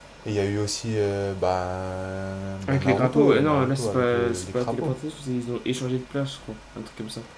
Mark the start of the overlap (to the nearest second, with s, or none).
3 s